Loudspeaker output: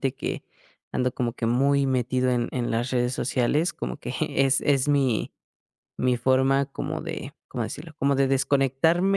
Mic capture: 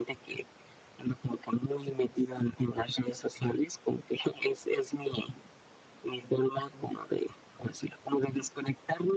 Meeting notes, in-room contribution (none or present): none